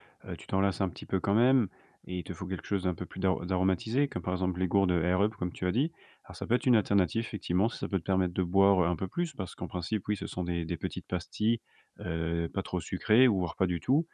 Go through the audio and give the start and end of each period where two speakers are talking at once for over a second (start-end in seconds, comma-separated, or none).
none